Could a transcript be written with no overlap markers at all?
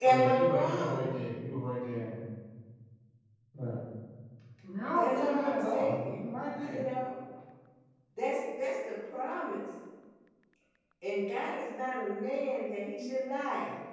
No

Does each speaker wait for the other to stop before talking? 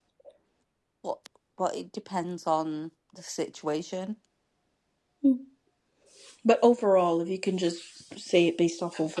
Yes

